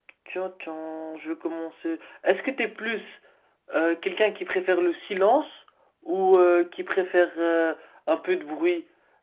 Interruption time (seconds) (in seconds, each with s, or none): none